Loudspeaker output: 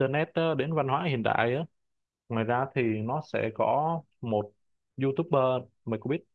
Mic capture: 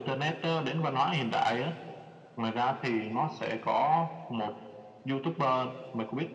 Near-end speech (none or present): none